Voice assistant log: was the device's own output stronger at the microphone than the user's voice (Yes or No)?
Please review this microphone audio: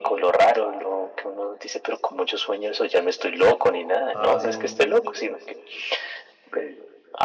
Yes